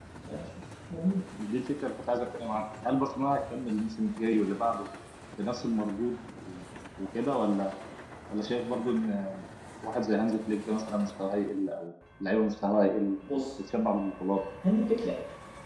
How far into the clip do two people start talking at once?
none

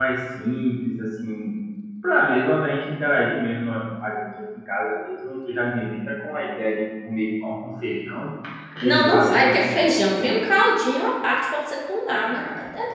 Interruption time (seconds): 8.8 s

